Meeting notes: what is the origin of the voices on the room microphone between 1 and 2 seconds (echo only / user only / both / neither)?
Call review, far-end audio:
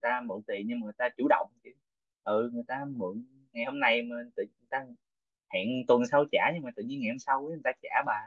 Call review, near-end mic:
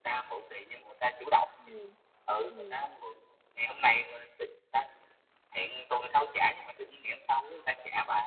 both